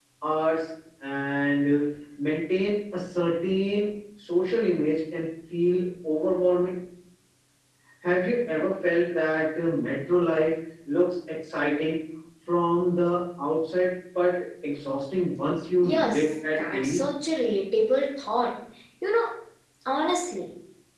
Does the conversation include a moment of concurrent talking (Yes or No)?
Yes